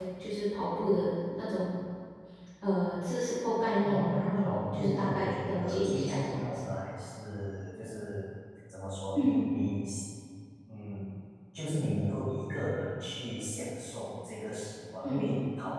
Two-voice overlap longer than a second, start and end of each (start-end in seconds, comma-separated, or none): 3.8-6.7